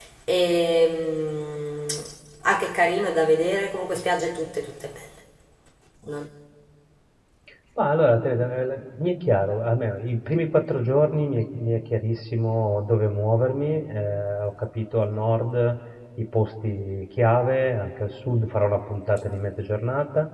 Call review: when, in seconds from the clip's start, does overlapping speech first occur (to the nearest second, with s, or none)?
none